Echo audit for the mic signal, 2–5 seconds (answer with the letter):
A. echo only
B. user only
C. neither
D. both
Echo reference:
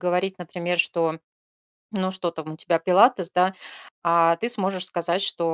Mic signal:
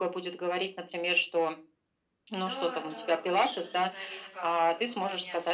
D